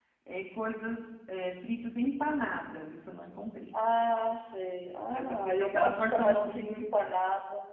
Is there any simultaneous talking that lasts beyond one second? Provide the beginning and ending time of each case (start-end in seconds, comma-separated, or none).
5.1-6.8